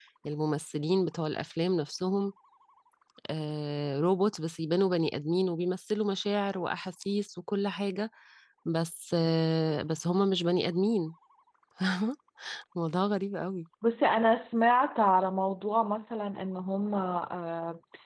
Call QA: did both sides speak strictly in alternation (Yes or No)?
Yes